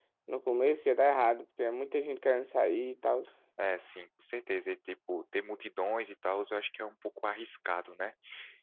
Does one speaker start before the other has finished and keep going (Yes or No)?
No